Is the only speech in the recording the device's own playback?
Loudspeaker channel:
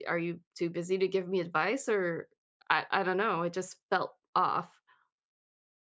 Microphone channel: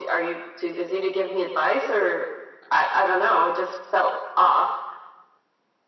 Yes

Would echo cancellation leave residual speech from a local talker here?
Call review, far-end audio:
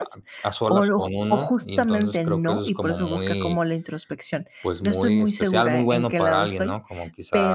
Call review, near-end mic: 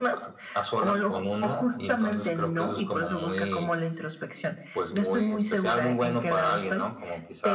No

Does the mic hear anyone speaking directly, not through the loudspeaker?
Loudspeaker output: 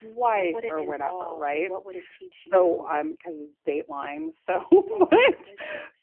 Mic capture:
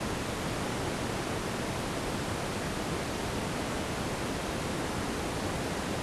No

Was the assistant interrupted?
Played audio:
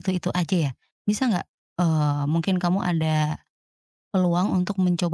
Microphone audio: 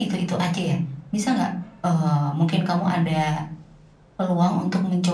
No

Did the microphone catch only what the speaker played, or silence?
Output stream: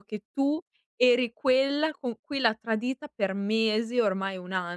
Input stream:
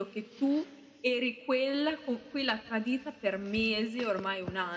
Yes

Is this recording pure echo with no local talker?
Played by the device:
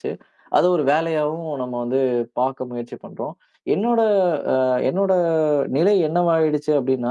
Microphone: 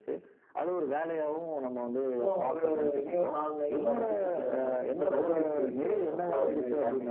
No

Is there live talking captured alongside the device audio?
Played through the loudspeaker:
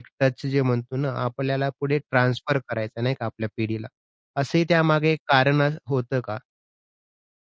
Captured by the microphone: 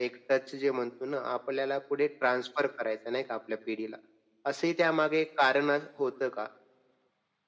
No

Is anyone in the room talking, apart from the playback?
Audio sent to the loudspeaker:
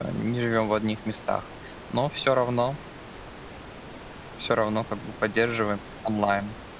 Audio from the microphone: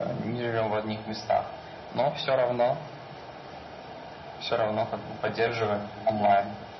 Yes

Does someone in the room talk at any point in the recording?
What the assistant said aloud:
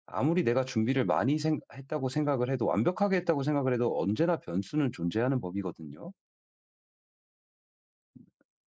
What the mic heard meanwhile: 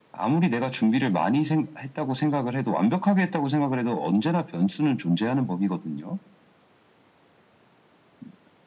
No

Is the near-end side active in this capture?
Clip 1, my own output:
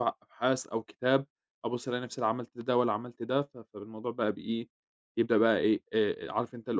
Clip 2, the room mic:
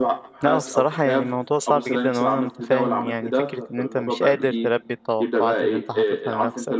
Yes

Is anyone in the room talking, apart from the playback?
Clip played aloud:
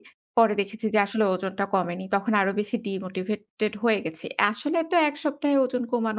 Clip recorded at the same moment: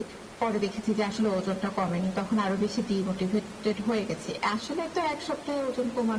No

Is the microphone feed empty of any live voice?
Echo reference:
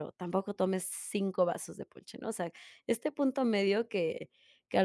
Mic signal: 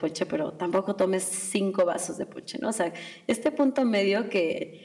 Yes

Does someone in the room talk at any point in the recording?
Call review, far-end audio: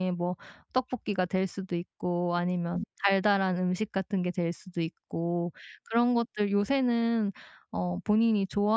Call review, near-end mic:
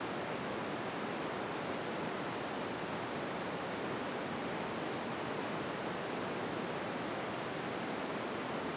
No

